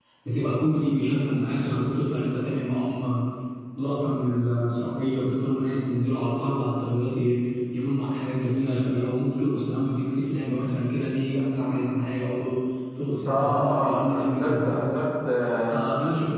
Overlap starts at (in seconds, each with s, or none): 13.2 s